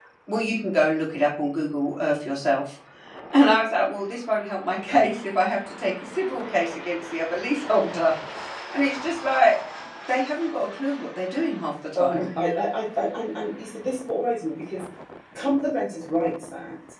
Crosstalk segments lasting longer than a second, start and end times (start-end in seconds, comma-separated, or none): none